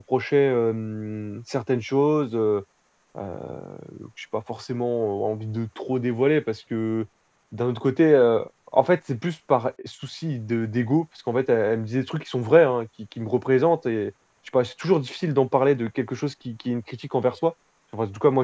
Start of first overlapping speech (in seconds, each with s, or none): none